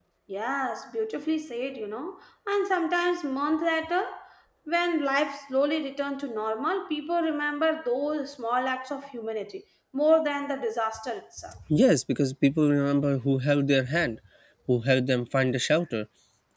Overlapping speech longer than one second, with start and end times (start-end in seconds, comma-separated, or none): none